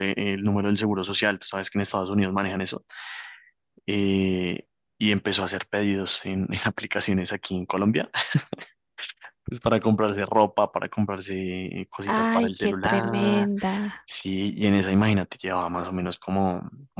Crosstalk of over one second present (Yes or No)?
Yes